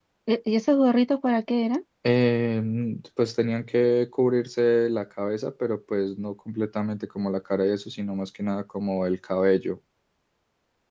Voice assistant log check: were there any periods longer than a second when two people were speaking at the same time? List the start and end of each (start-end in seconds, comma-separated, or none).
none